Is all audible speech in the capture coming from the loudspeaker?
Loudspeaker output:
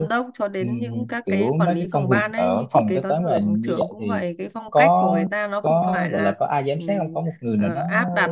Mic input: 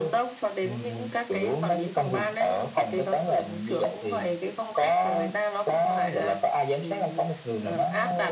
Yes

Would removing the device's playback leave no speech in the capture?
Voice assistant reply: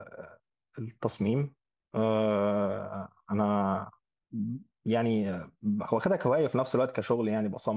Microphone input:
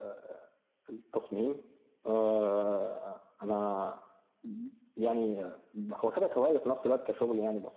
Yes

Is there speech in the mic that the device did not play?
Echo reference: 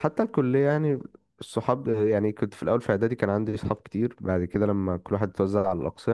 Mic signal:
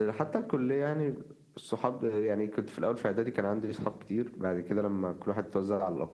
No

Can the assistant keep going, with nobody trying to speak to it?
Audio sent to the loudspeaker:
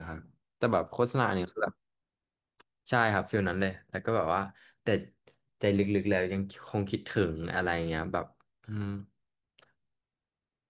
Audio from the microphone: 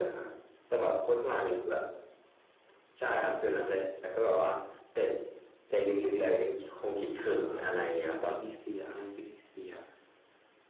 No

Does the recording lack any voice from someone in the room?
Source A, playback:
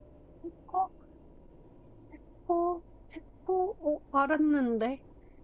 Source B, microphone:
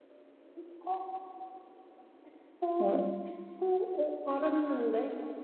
No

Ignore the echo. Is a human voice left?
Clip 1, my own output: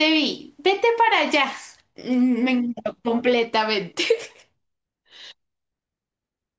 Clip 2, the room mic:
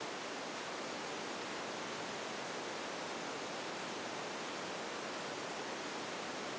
No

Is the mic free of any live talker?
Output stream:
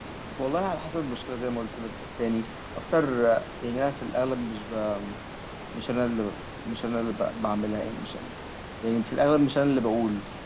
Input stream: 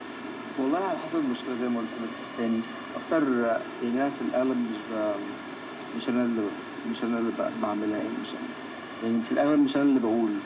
Yes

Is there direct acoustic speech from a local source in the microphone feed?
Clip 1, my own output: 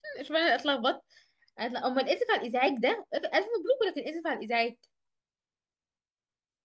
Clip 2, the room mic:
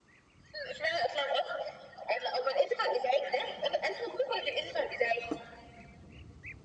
No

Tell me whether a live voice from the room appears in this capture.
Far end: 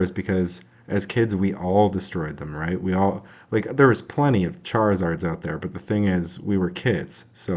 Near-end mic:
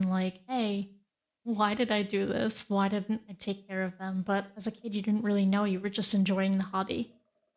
Yes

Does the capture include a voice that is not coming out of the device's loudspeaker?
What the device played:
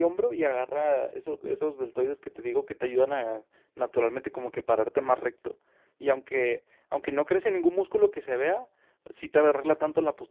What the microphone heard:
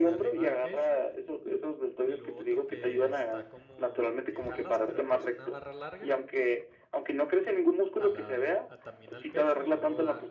Yes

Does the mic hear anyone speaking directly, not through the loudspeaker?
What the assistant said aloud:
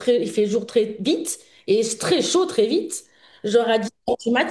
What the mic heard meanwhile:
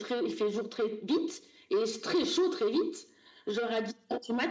No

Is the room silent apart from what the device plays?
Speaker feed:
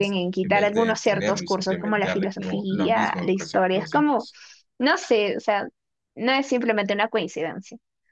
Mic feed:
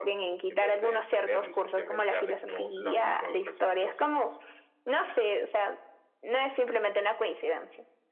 Yes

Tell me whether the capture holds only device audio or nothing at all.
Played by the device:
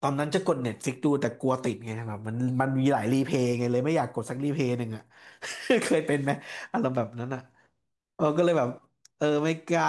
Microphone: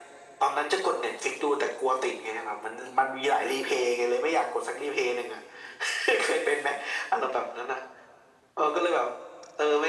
Yes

